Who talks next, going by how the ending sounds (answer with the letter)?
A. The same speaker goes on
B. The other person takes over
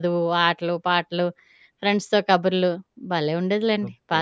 B